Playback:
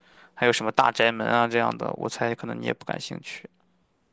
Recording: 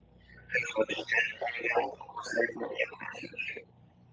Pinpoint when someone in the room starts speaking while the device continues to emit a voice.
none

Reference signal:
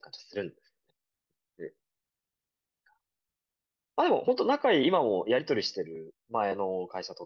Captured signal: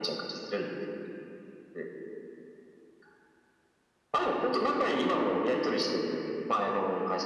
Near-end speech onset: none

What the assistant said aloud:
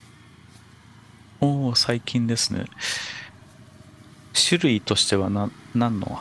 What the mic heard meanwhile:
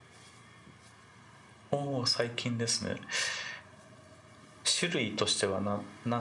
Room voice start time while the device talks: none

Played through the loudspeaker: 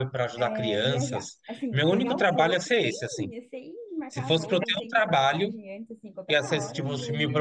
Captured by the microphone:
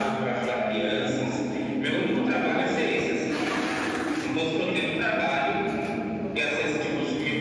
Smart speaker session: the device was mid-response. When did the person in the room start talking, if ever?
none

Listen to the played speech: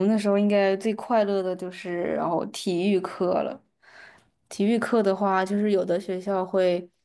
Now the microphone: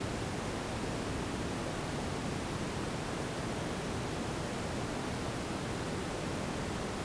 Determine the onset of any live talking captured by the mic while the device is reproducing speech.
none

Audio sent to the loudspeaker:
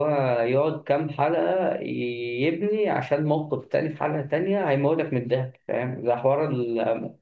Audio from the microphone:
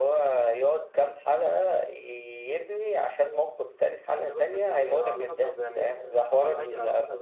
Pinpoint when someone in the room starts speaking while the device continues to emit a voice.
4.2 s

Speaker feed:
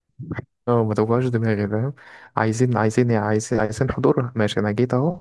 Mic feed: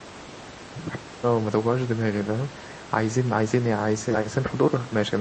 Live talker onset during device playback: none

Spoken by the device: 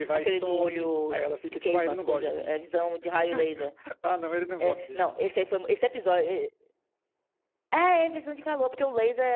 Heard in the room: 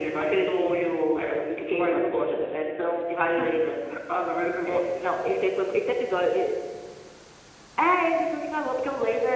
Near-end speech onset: none

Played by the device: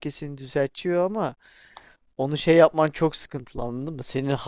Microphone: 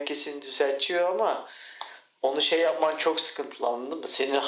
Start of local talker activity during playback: none

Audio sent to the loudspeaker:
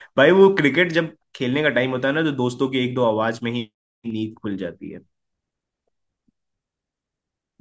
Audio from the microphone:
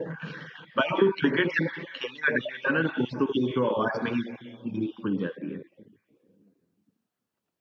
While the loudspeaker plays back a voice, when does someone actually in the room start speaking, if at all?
none

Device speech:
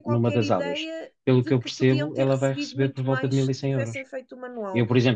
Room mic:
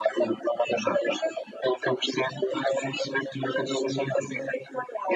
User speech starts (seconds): none

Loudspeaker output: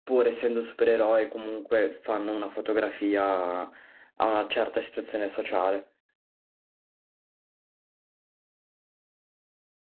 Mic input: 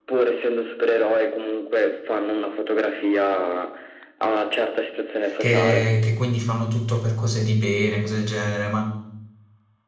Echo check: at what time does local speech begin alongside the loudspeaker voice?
5.4 s

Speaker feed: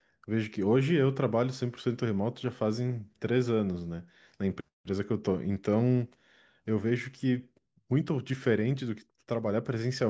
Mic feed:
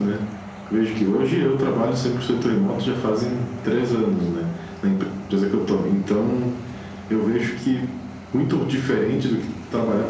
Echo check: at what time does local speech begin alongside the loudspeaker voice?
none

